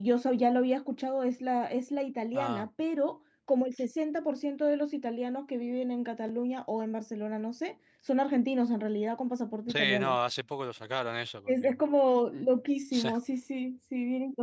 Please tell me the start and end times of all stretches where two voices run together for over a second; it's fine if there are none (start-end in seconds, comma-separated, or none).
none